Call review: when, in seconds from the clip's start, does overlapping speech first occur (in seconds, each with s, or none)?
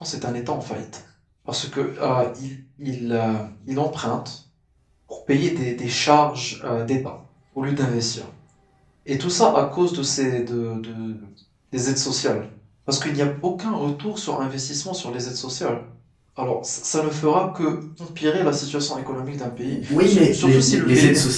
19.6 s